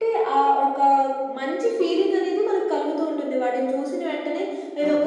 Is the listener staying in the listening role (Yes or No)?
Yes